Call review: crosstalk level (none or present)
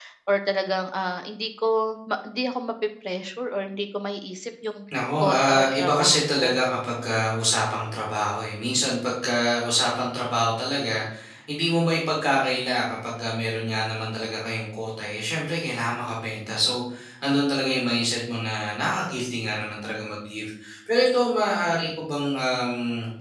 present